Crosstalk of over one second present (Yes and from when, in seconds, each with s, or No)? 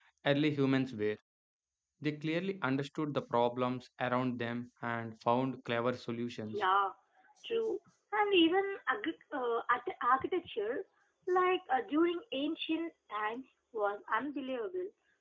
No